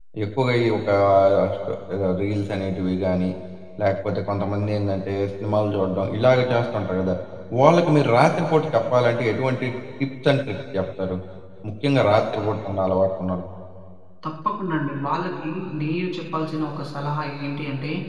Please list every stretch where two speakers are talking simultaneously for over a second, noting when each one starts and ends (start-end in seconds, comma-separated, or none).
none